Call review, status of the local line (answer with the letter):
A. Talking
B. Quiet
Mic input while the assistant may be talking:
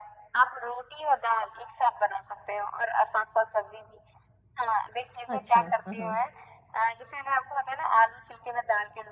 A